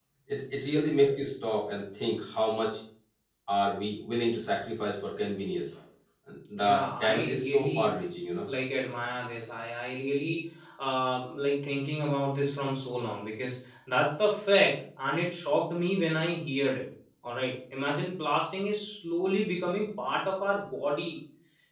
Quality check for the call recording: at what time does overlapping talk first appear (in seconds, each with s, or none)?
6.5 s